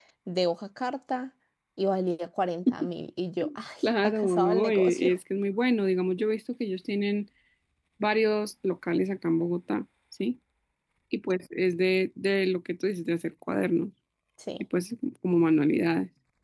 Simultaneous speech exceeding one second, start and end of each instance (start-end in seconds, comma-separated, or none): 3.8-5.1